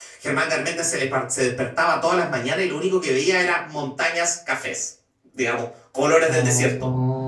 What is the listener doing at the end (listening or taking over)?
taking over